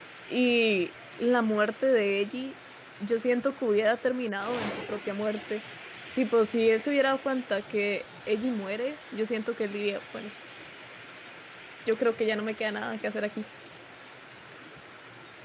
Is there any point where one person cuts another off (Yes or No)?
No